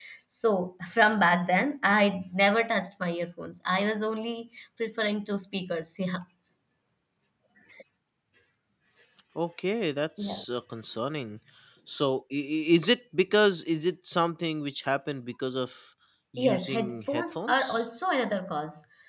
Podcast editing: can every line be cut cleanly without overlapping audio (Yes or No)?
No